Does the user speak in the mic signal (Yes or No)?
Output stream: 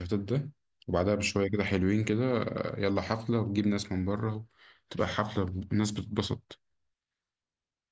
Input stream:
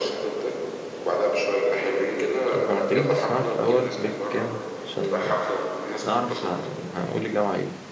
Yes